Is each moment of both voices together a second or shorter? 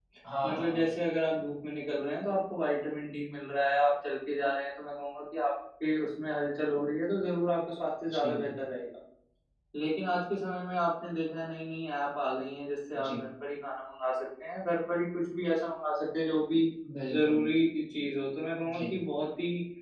Yes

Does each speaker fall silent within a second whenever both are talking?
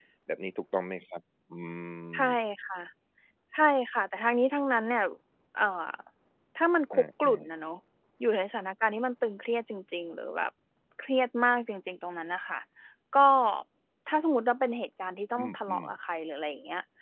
Yes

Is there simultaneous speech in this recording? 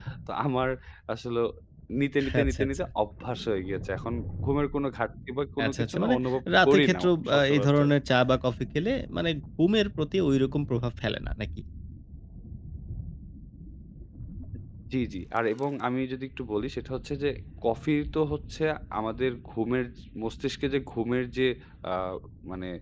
Yes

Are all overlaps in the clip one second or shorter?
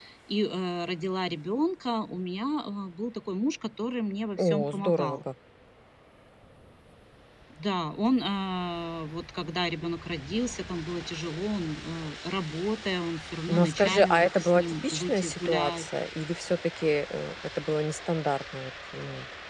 No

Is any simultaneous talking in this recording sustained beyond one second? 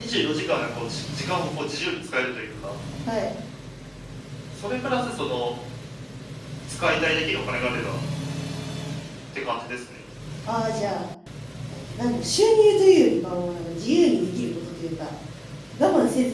No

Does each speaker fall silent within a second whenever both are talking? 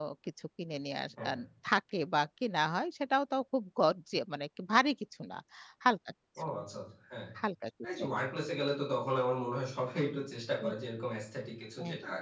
Yes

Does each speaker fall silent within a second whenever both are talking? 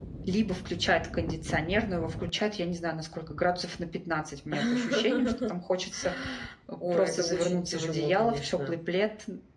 No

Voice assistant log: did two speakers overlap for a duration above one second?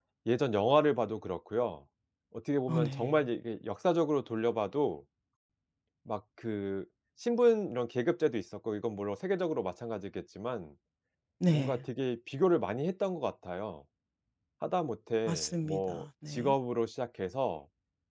Yes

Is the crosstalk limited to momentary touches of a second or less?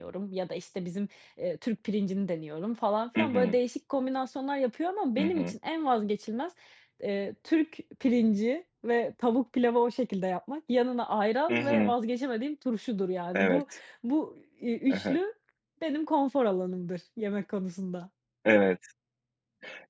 Yes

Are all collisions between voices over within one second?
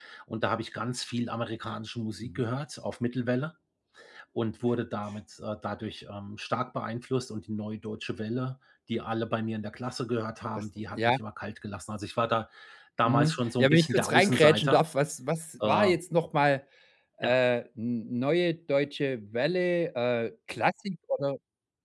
No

